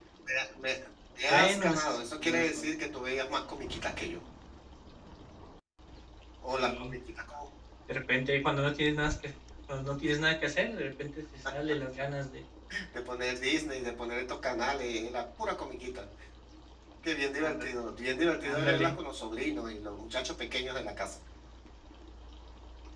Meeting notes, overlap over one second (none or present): present